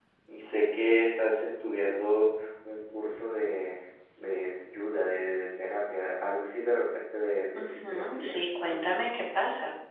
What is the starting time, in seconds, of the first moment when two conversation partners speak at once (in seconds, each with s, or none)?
7.6 s